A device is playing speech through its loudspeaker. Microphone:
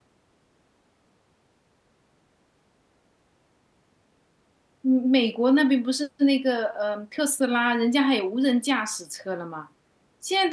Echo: none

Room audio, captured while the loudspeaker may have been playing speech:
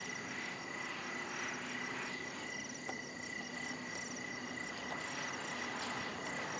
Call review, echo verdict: none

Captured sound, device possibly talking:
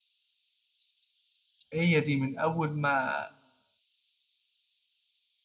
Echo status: none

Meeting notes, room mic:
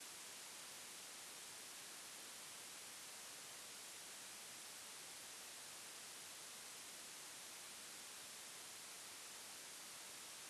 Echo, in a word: none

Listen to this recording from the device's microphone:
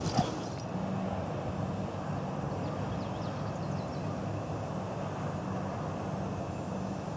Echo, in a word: none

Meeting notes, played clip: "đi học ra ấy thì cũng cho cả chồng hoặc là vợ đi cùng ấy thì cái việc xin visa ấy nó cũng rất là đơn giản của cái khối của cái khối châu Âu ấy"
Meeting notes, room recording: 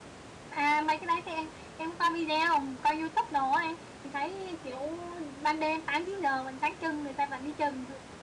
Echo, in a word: none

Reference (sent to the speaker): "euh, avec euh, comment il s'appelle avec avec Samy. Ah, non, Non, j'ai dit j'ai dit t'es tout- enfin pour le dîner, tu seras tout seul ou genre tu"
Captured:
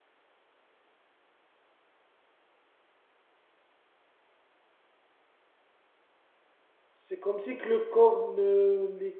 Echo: none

